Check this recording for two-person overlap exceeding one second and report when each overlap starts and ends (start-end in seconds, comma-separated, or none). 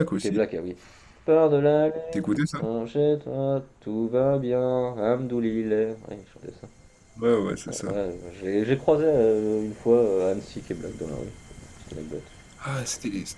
none